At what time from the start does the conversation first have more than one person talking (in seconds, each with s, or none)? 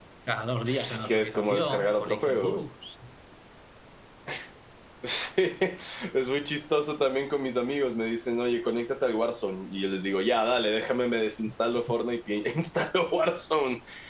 0.6 s